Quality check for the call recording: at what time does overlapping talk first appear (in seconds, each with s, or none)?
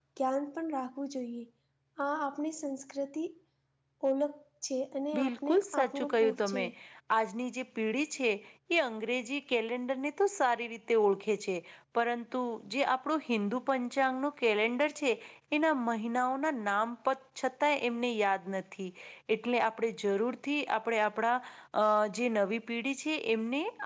5.1 s